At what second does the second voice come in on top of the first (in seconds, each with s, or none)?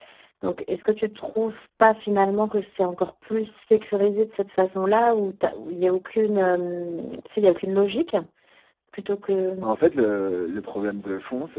none